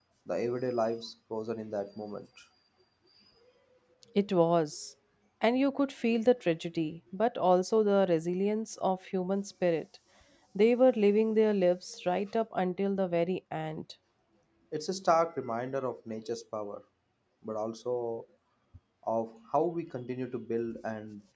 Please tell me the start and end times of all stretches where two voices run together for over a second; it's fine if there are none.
none

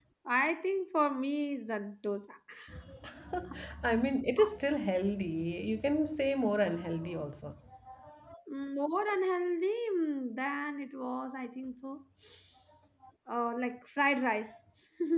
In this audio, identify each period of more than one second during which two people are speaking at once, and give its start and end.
none

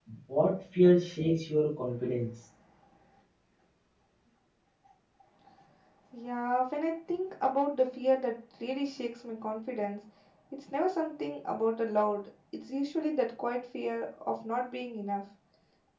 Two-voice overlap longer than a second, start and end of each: none

